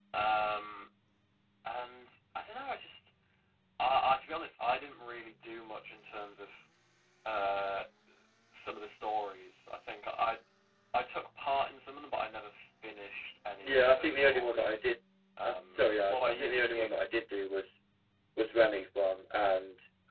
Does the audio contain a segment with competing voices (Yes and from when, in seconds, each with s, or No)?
Yes, from 13.6 s